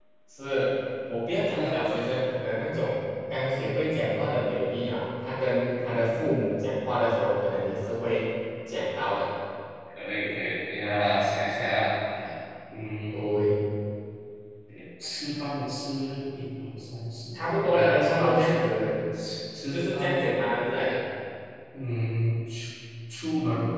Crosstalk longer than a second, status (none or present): present